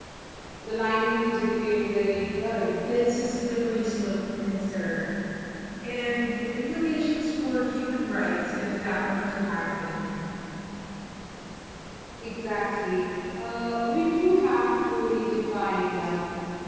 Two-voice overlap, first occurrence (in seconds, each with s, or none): none